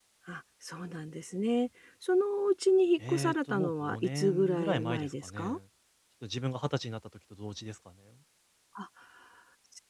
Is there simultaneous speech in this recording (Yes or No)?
Yes